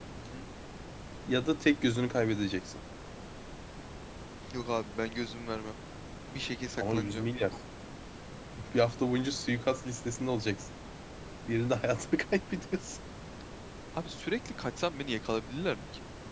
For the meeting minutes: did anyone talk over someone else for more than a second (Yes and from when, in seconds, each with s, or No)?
No